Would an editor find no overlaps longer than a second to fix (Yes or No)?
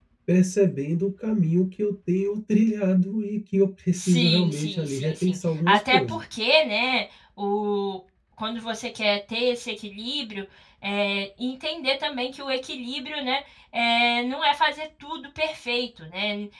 No